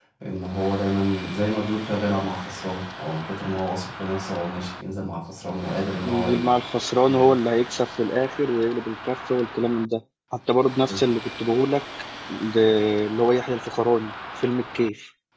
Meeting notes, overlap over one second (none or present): none